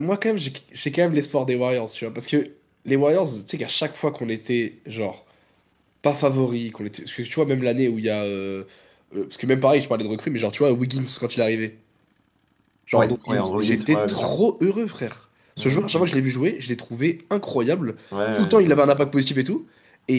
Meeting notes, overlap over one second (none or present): present